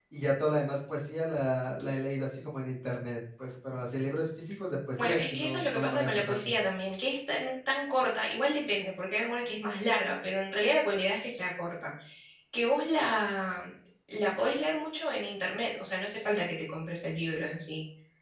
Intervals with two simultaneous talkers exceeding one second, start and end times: 5.0-6.4

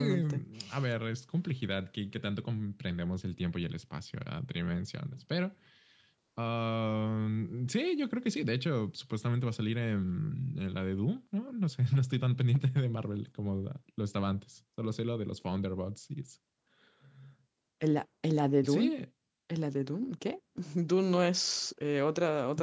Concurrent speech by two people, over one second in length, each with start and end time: none

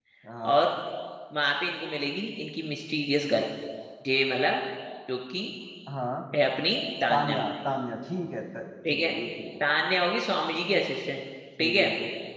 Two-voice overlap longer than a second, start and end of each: none

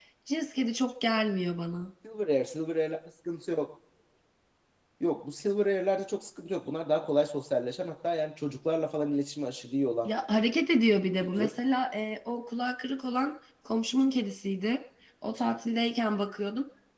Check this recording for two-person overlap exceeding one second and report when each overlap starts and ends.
none

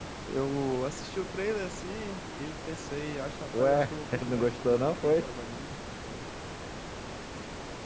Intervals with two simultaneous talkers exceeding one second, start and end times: 3.5-5.3

